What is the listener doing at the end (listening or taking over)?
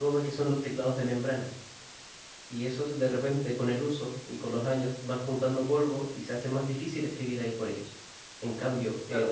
taking over